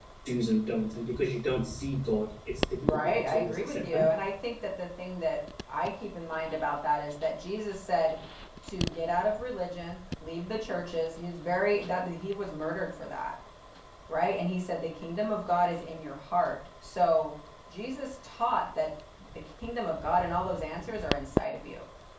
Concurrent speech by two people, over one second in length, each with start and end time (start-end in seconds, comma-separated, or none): 2.7-4.0